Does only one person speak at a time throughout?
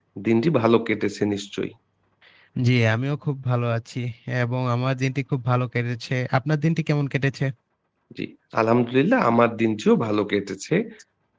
Yes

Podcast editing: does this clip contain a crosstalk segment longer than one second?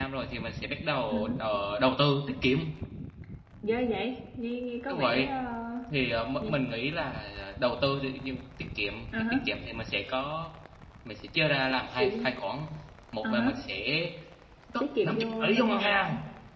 Yes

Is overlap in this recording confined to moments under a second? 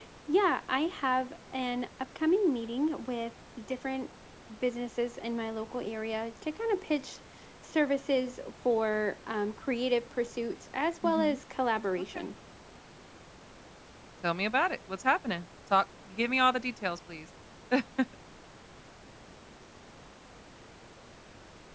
Yes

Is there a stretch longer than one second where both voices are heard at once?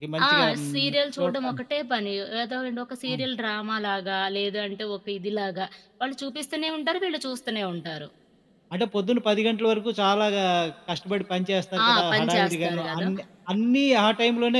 Yes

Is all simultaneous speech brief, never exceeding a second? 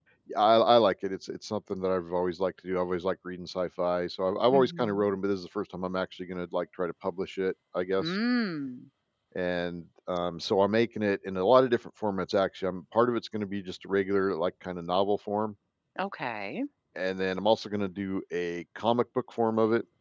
Yes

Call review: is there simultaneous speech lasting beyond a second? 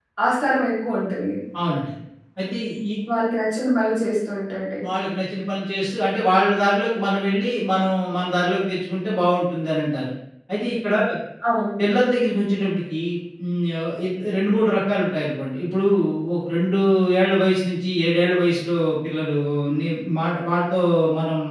No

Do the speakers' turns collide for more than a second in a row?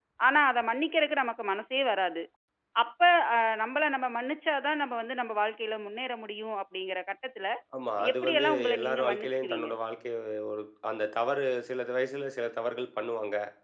Yes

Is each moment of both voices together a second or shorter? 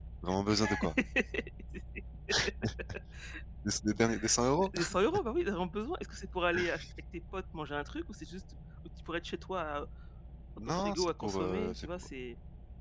No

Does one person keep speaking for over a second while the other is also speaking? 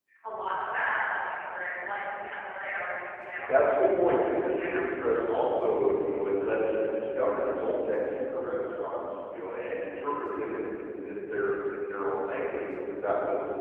No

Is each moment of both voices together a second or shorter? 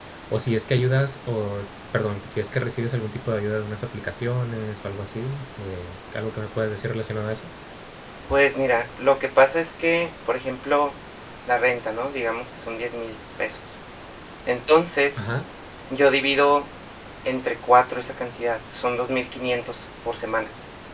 Yes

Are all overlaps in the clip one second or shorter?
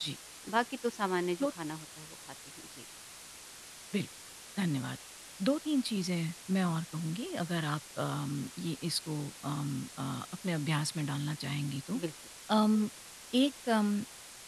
Yes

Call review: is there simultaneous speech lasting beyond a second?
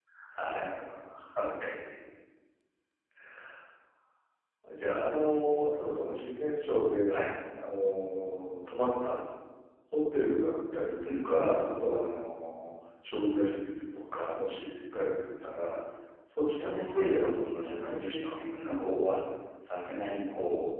Yes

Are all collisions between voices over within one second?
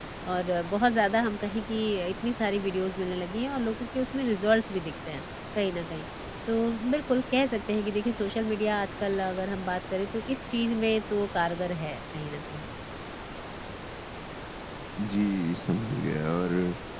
Yes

